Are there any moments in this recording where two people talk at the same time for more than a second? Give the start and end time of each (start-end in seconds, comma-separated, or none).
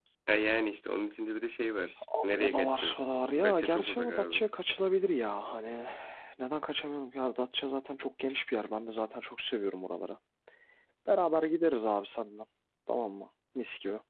2.2-4.4